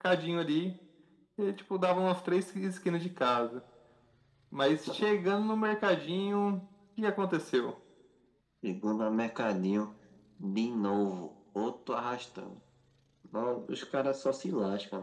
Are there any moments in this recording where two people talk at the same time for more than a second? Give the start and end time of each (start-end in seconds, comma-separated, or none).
none